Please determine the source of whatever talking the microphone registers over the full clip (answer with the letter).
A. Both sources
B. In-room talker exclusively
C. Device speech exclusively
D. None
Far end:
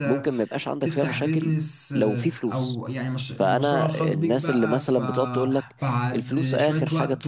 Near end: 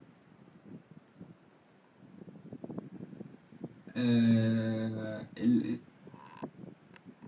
B